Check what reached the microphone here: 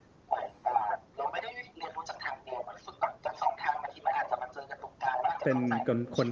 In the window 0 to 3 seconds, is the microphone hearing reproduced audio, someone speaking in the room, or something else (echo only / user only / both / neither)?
echo only